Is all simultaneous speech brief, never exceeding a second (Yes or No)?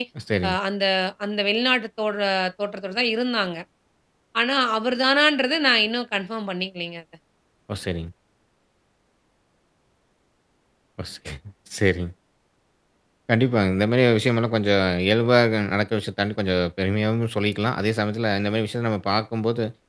Yes